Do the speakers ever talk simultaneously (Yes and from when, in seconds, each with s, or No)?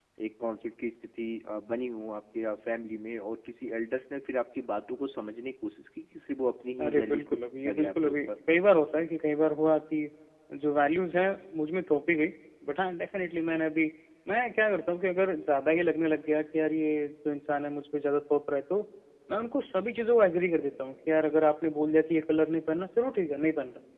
Yes, from 6.8 s